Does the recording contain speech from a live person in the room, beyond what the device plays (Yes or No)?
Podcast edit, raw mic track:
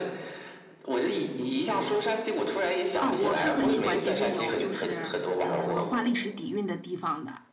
Yes